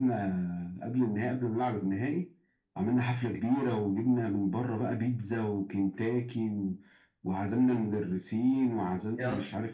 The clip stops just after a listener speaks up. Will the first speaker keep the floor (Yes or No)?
Yes